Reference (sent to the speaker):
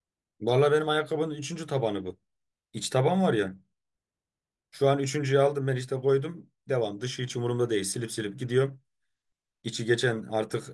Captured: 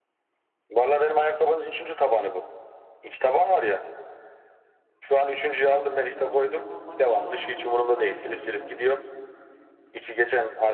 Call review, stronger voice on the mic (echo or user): echo